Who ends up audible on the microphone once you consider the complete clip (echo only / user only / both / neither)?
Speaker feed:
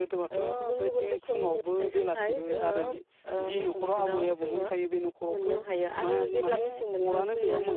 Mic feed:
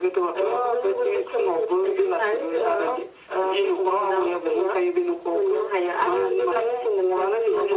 echo only